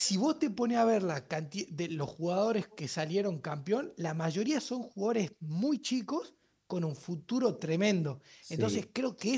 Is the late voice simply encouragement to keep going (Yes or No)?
Yes